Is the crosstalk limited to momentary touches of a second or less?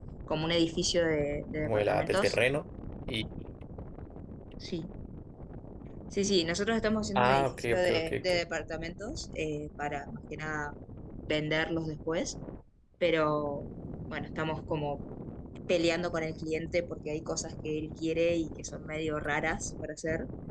No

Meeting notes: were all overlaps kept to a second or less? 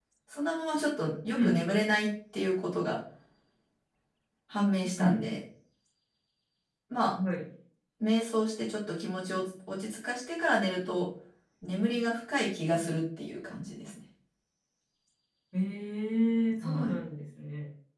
Yes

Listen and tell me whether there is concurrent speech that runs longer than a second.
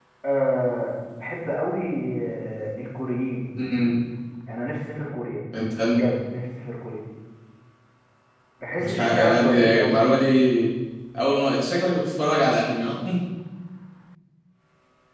Yes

